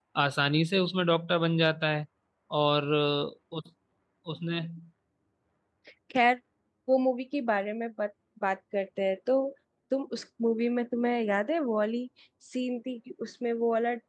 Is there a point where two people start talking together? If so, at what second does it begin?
none

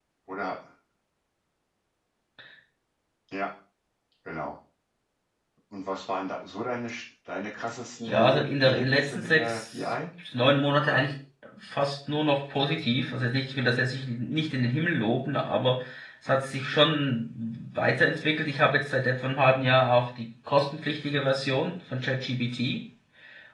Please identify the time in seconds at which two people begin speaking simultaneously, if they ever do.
8.1 s

